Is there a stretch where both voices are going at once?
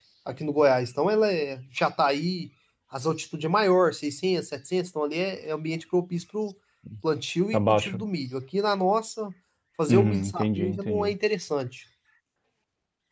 Yes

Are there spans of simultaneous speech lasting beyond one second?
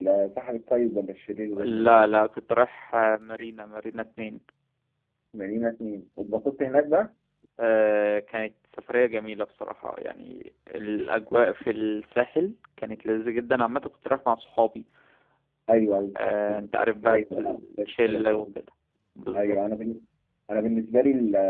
Yes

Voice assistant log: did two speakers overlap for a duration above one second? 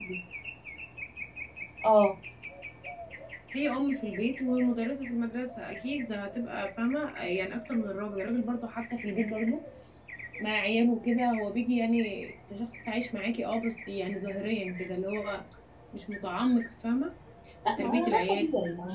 Yes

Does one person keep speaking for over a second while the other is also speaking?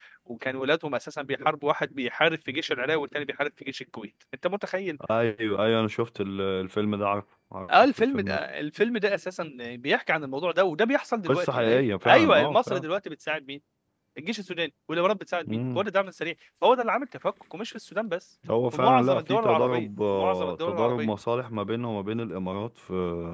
Yes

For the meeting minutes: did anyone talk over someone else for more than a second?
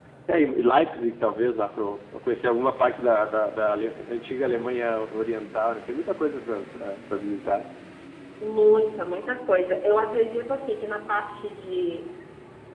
No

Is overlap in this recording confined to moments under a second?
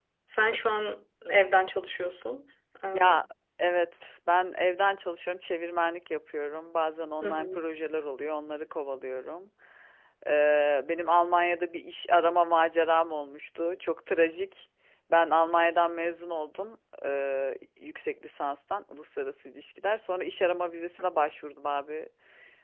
Yes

